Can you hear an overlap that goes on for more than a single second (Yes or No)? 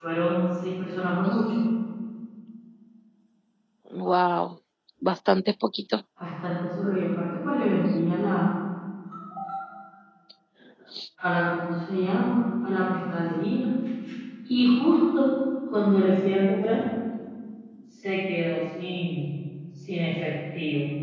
No